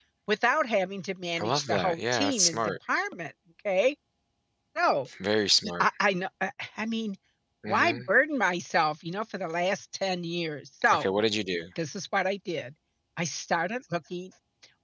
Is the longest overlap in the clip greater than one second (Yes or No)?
Yes